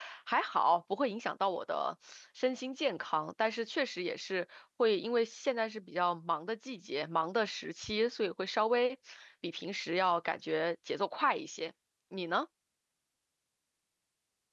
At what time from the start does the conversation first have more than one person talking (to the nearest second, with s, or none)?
none